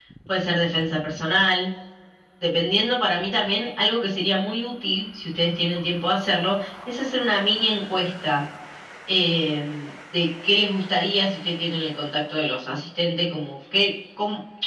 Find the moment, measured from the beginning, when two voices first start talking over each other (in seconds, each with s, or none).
none